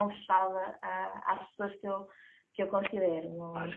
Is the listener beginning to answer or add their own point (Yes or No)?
Yes